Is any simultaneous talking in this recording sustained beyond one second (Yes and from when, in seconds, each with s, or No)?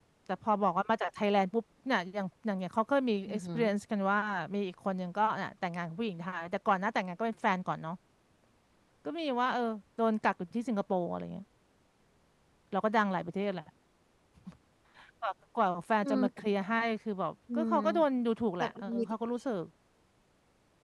No